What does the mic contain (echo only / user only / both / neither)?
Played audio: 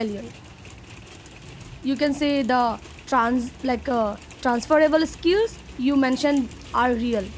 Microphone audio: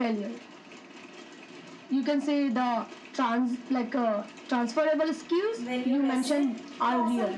both